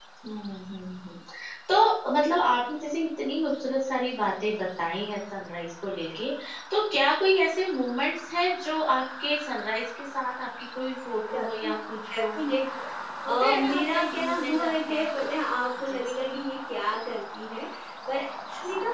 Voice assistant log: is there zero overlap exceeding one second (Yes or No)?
No